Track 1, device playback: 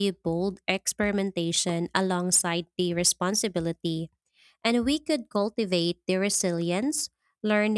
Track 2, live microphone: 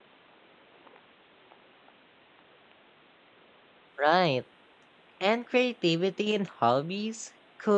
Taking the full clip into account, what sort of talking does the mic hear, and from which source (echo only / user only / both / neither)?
user only